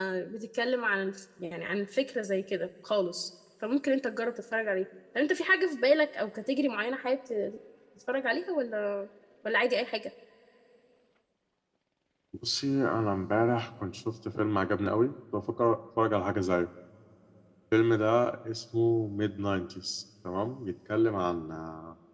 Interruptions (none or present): none